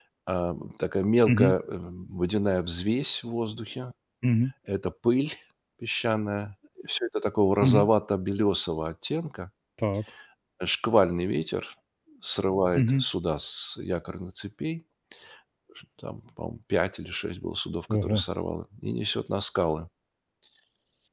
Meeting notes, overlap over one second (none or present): none